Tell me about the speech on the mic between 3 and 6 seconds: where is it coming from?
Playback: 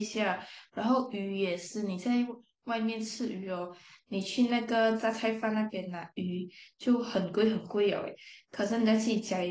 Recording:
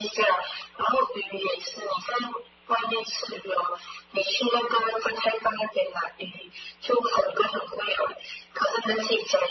echo only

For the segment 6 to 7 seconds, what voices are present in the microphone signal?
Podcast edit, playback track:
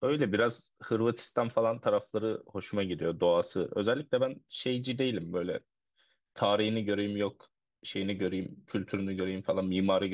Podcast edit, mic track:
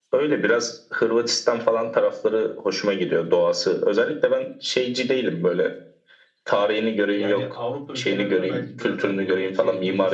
echo only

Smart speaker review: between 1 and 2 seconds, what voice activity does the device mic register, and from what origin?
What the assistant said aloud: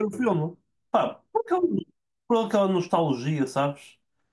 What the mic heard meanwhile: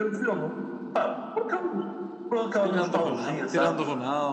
echo only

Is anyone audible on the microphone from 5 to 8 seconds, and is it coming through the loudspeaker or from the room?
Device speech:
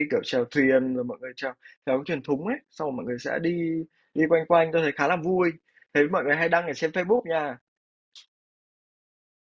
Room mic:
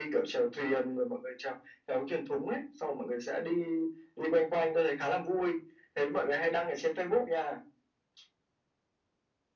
echo only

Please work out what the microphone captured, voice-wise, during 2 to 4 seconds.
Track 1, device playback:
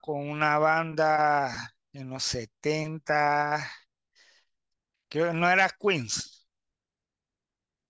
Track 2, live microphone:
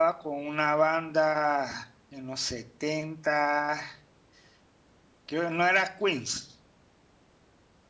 echo only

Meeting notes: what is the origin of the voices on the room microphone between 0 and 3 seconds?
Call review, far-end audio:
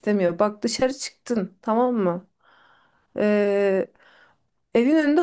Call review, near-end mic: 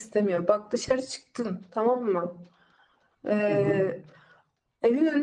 echo only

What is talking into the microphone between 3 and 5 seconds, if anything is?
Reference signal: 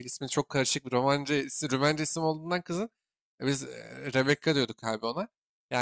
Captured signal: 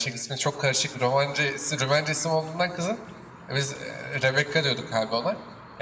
echo only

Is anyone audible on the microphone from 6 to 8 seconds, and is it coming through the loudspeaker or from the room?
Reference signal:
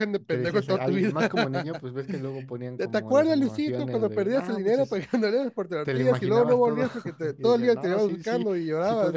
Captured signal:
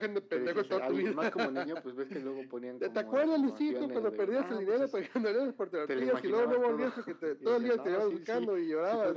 echo only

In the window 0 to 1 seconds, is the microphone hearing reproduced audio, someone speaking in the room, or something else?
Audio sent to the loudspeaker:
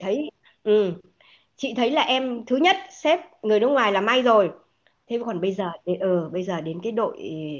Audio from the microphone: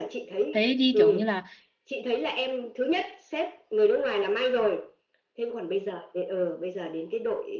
both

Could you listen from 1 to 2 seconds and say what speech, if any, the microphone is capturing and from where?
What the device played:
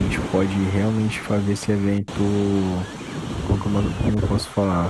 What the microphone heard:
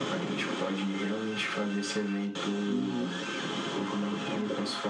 echo only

